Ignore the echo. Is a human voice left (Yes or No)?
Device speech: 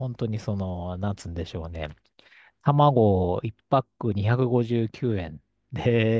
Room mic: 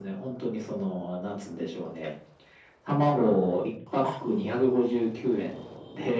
No